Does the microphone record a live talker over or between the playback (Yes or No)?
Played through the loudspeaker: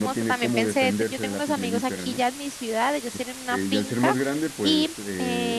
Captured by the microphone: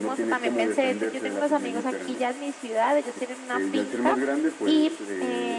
No